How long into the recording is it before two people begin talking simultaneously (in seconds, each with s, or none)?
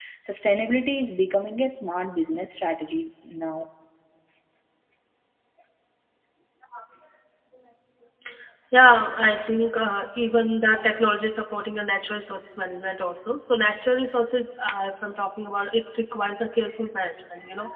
none